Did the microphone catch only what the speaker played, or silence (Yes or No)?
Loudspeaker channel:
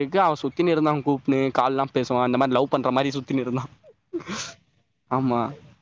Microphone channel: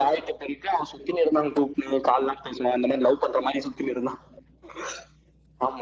Yes